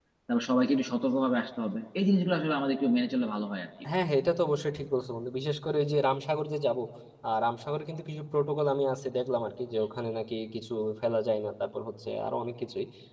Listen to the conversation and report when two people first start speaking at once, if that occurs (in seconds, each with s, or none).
none